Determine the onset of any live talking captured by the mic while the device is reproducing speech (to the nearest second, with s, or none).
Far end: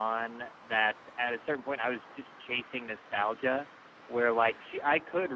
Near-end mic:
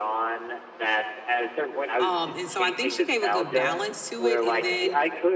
2 s